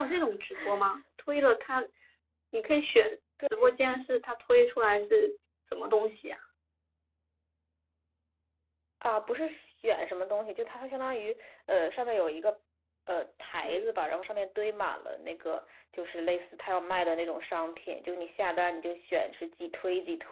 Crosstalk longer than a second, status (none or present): none